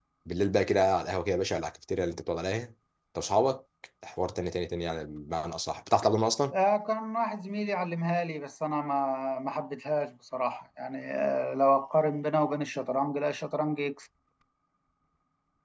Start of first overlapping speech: none

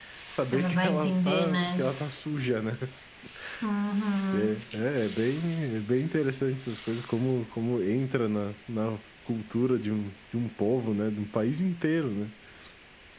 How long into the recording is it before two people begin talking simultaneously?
0.5 s

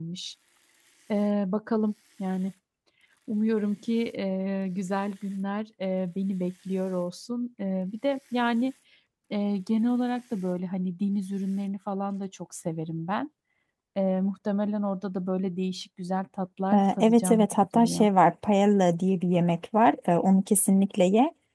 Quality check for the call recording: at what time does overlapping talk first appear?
16.7 s

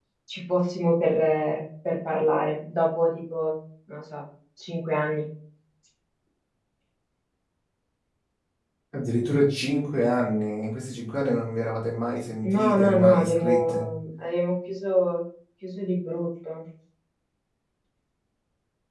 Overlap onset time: 12.4 s

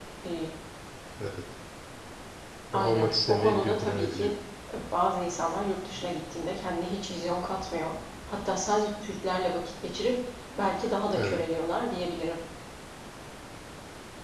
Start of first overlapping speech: 2.7 s

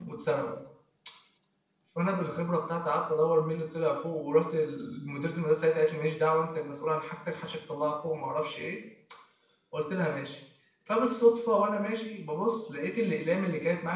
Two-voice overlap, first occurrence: none

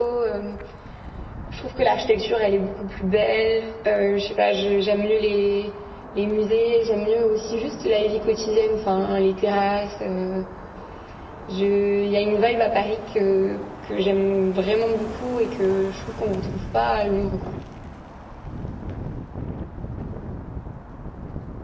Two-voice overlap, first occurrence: none

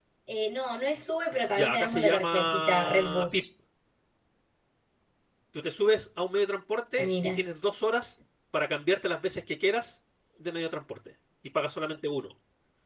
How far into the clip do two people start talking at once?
1.6 s

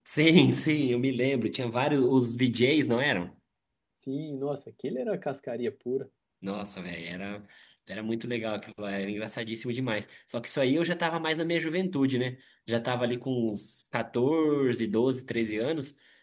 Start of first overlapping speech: none

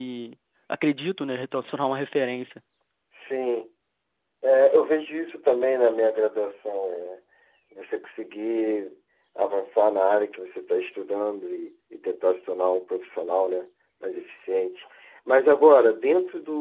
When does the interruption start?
none

